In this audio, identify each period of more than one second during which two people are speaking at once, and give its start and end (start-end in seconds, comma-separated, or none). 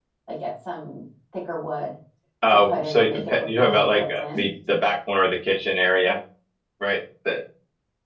2.6-4.4